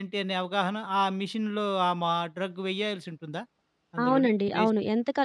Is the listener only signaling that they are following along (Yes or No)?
No